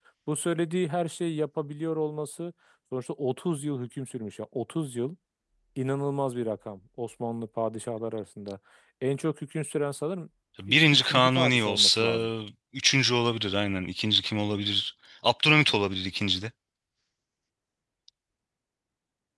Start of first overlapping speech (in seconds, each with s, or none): 10.7 s